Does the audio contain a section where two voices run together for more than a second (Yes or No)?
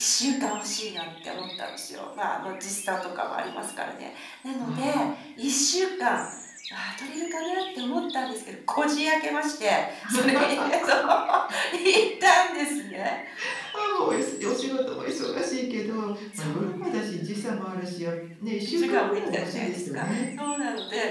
Yes